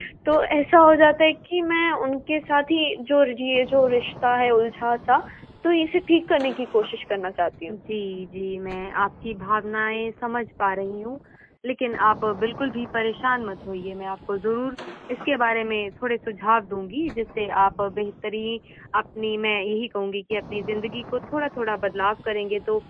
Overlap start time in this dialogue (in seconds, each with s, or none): none